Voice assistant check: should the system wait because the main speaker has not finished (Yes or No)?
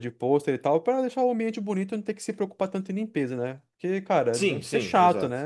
No